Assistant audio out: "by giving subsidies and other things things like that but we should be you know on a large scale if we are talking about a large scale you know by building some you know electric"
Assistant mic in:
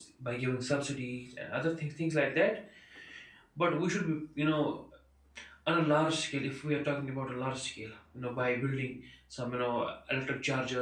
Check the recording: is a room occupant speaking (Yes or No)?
No